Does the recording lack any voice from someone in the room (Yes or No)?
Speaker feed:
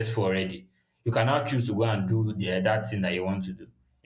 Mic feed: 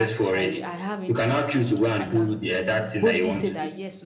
No